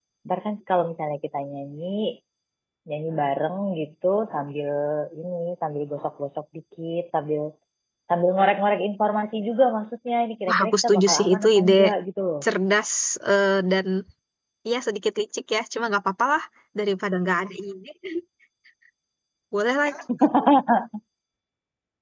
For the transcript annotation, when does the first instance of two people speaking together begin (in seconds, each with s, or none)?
10.5 s